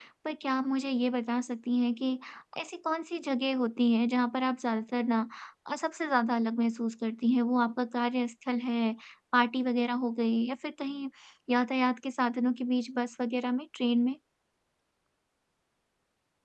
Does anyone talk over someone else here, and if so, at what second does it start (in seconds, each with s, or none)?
none